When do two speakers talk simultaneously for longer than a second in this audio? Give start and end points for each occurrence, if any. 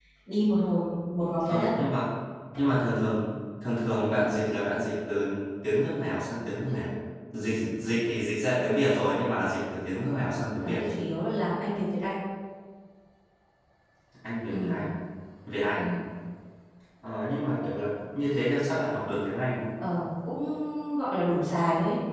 none

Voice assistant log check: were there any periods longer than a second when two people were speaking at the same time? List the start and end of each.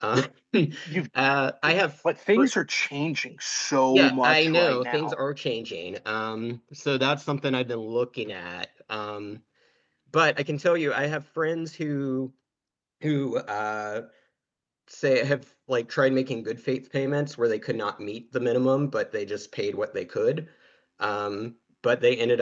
3.9-5.2

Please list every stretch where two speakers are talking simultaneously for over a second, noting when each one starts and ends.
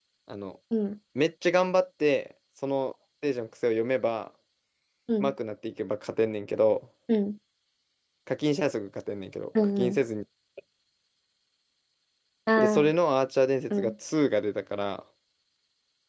none

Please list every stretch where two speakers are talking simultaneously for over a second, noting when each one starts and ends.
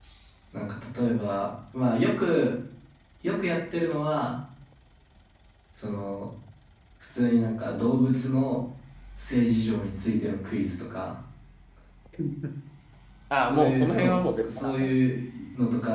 13.5-14.9

